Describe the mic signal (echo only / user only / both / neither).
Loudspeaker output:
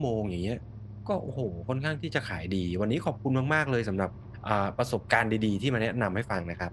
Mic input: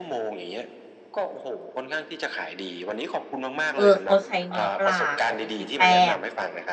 both